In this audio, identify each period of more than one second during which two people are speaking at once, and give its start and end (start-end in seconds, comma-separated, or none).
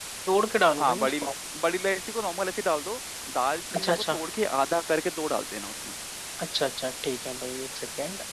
none